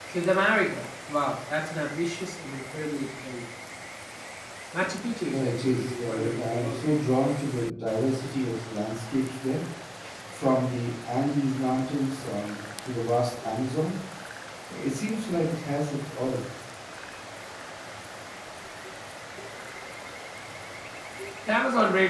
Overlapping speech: Yes, from 5.3 s

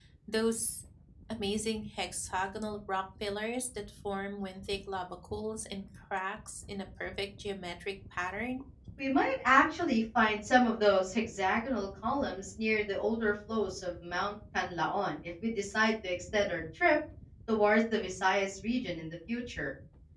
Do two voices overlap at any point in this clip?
No

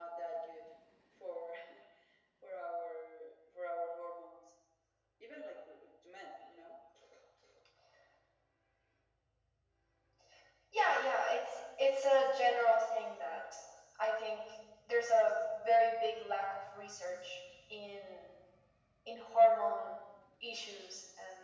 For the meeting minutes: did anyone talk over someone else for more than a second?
No

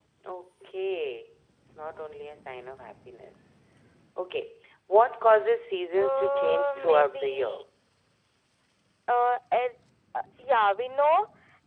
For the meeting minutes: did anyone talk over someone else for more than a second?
Yes, from 6.0 s

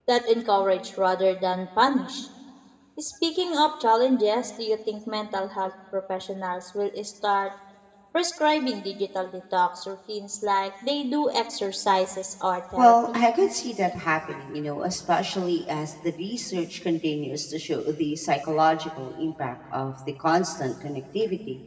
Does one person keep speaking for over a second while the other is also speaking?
No

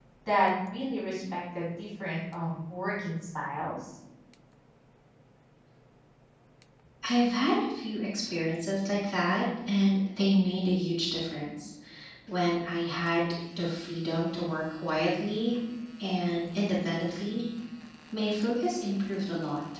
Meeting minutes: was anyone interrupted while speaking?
No

